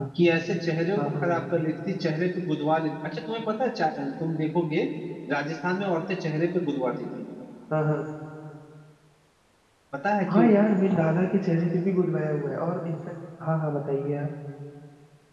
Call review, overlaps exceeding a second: none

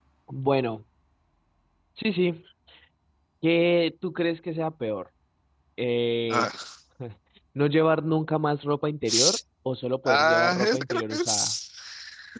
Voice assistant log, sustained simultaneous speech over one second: present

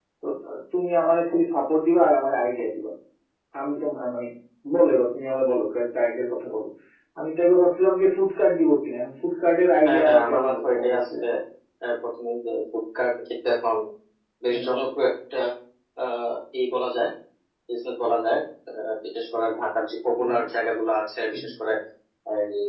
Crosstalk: present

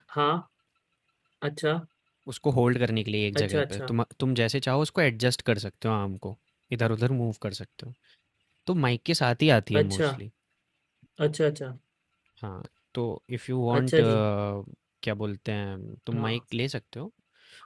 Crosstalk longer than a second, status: none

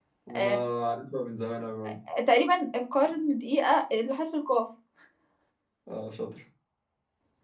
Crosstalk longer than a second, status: none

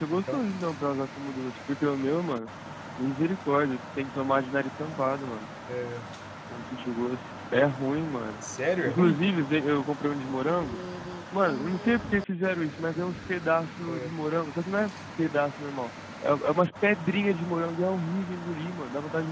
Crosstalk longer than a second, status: none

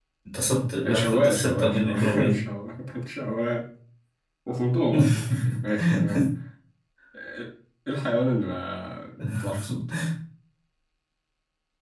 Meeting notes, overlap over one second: present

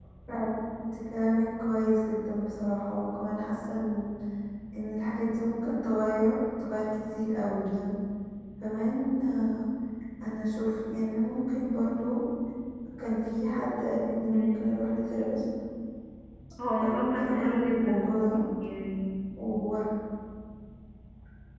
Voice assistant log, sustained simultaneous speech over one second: present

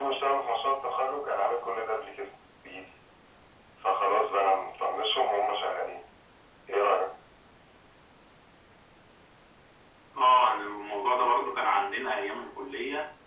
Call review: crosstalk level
none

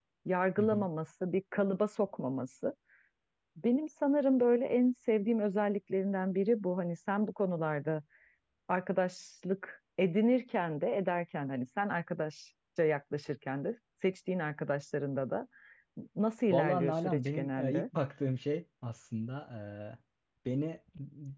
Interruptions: present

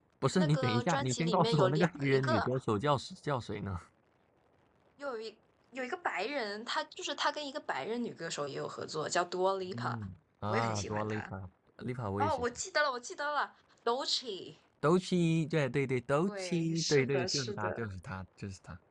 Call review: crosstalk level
present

